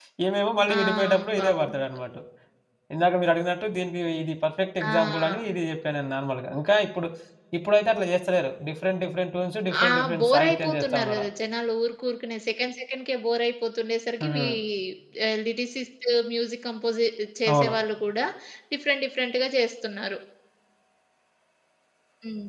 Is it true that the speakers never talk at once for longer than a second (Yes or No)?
No